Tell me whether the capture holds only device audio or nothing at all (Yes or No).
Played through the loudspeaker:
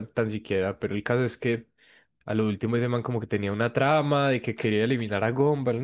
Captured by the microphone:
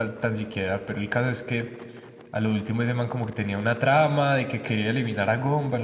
Yes